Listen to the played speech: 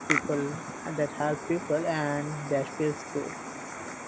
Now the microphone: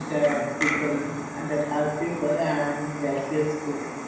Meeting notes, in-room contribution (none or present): none